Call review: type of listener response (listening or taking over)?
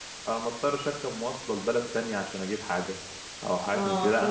listening